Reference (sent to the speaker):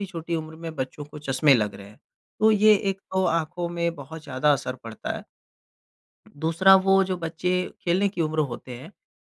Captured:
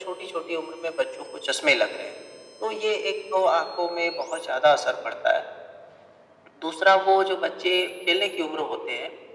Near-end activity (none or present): none